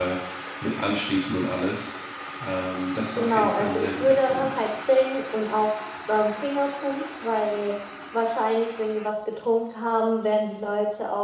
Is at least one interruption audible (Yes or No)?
Yes